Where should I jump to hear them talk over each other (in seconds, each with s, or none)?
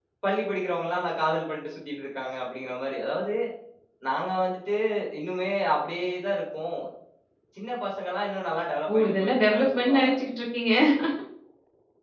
8.9 s